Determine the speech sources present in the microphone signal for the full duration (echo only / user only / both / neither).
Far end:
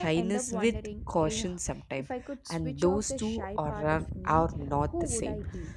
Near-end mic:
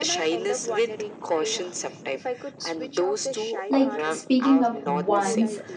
both